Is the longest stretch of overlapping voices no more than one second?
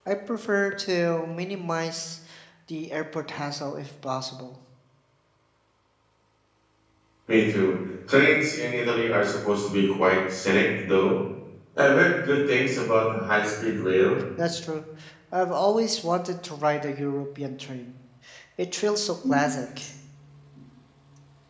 Yes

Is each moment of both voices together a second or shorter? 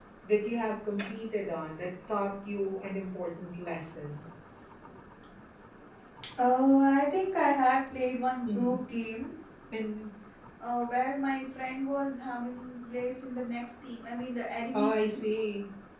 Yes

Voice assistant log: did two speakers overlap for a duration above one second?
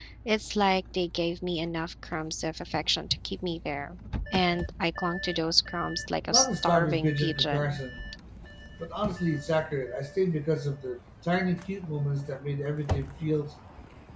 Yes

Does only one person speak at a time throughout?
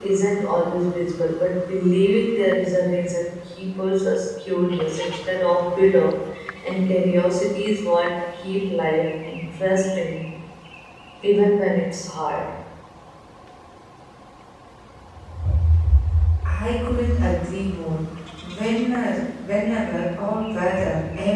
Yes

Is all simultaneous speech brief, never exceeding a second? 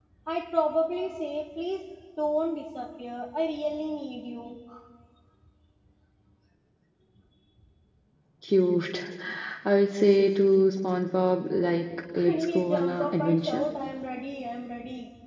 No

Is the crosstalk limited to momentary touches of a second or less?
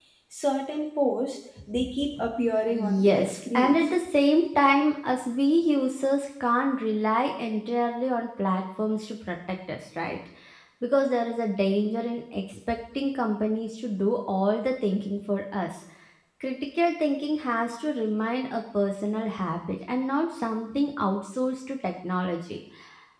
No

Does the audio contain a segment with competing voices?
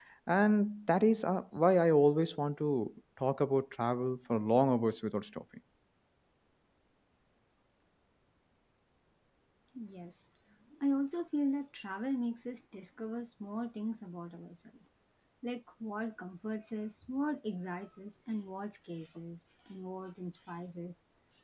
No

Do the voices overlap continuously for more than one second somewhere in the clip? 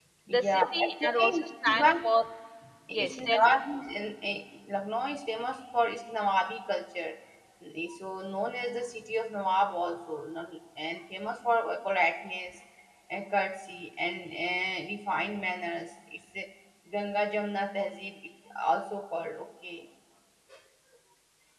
Yes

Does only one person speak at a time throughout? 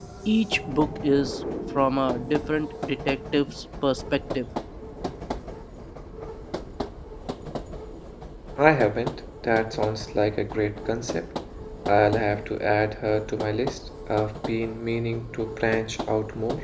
Yes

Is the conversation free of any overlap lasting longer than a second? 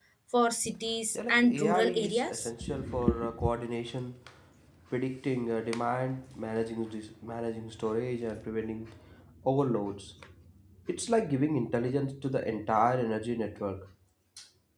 No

